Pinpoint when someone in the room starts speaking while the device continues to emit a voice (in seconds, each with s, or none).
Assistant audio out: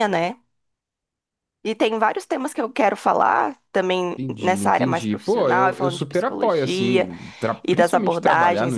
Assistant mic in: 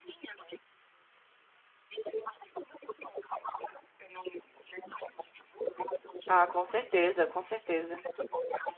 6.3 s